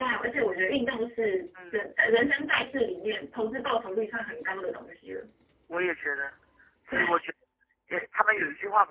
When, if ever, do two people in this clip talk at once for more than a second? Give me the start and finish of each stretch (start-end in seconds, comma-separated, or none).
none